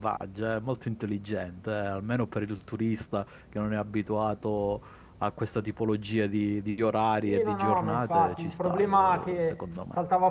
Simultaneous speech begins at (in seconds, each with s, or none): 7.2 s